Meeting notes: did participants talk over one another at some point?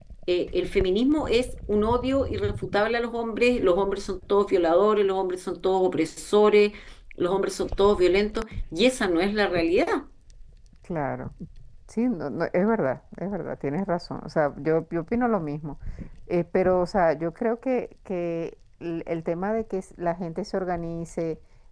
No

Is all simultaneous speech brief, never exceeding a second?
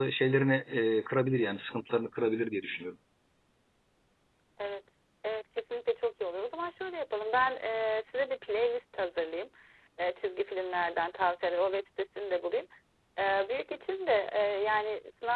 Yes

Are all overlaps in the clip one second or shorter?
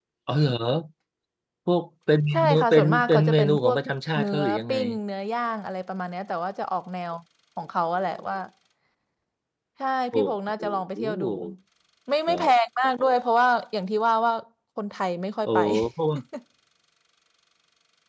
No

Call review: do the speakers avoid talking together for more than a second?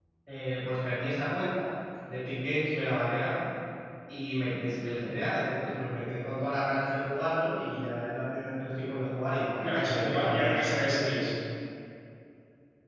No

